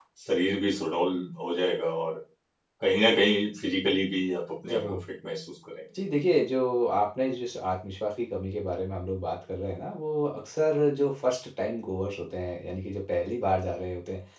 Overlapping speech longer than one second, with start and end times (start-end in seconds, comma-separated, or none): none